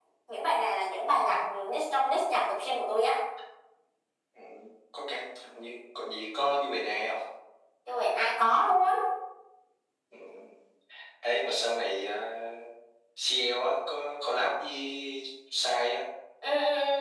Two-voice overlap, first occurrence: none

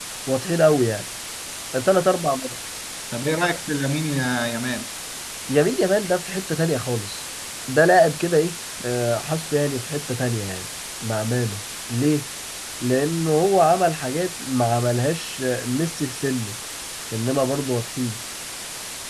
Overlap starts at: none

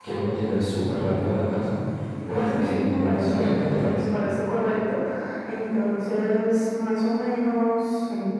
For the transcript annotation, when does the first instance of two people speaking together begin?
2.3 s

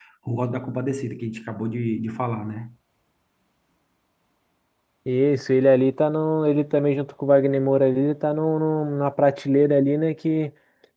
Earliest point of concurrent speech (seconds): none

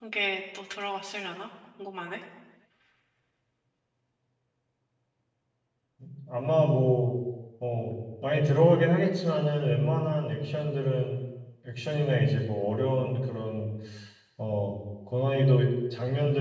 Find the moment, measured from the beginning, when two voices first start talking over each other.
none

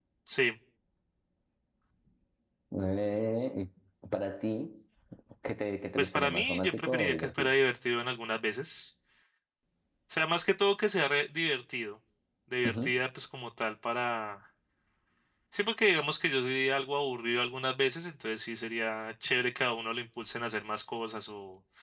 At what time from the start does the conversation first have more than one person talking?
6.0 s

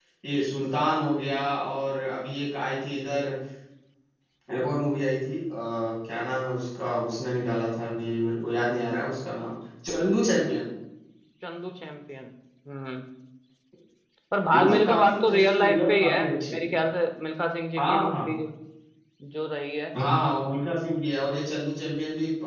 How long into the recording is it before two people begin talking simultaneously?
14.5 s

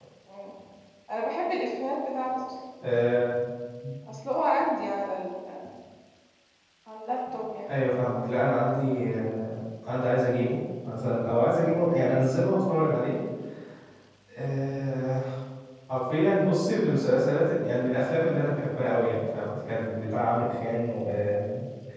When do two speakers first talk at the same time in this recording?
none

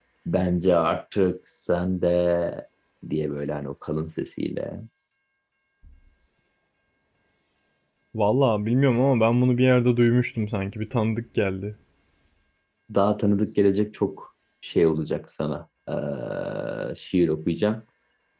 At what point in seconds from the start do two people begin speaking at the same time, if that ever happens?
none

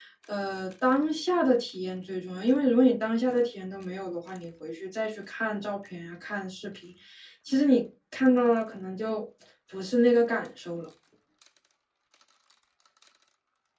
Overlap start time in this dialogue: none

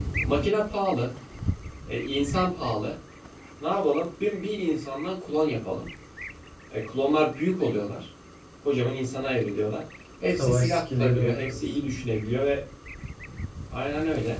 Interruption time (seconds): 10.3 s

